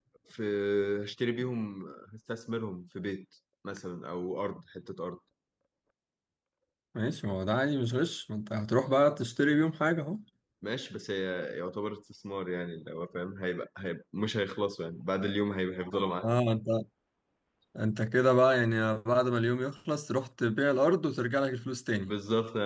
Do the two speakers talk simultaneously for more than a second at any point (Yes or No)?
No